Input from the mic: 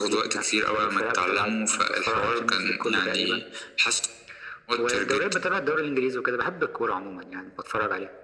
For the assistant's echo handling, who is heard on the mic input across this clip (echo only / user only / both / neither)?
echo only